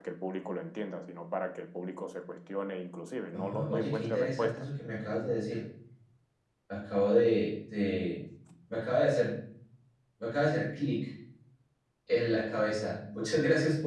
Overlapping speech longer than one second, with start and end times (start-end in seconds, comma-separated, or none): 3.3-4.7